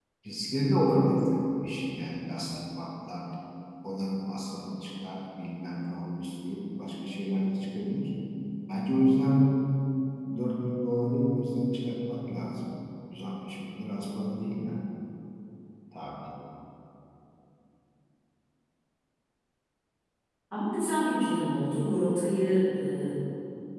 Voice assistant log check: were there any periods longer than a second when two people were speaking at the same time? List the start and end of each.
none

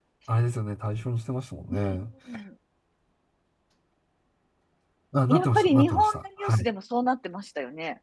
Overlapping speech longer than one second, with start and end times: 5.3-6.7

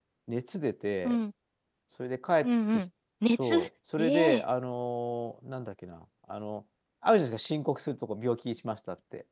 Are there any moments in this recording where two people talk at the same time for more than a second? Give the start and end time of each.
none

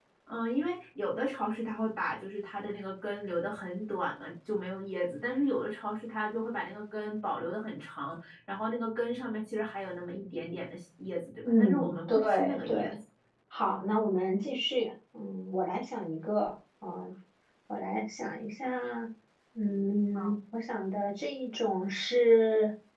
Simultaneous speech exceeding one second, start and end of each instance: 11.4-12.9

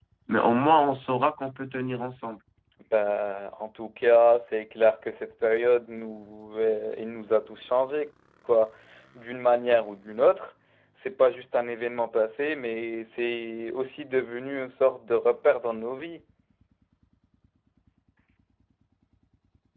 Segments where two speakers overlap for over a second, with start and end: none

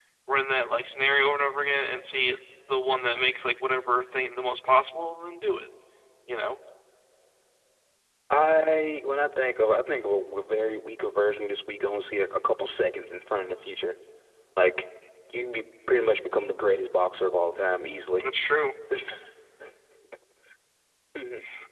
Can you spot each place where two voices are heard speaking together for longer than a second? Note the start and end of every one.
none

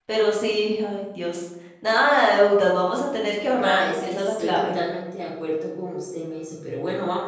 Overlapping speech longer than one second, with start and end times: 3.5-4.8

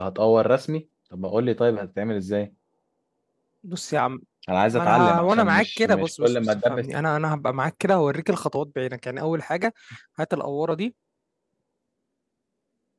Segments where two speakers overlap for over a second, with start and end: 4.7-6.8

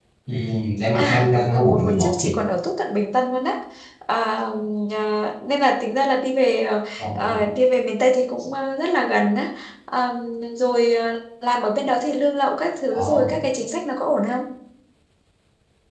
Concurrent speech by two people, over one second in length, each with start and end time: 1.0-2.4

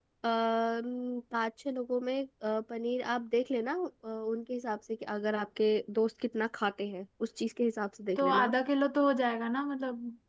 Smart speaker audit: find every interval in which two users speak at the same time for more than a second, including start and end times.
none

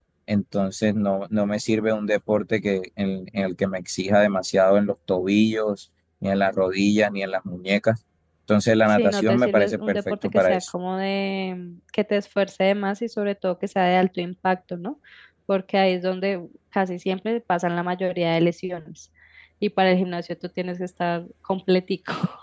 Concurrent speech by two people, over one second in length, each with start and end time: 8.9-10.6

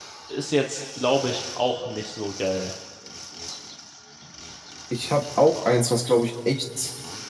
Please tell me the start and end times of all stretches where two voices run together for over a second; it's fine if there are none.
none

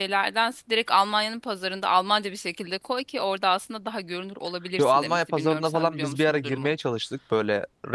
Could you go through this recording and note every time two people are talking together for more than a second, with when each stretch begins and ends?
4.8-6.7

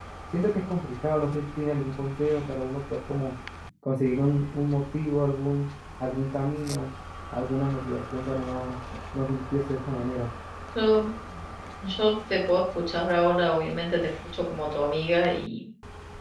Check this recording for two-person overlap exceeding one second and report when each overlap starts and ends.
none

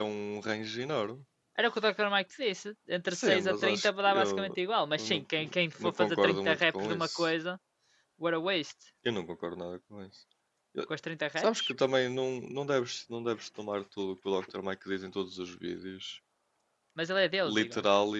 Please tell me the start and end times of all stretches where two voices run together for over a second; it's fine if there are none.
3.1-4.6, 5.8-7.3

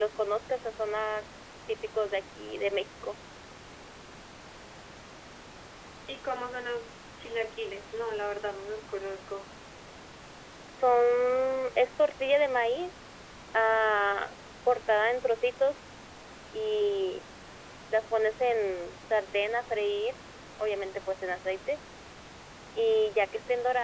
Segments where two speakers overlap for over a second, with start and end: none

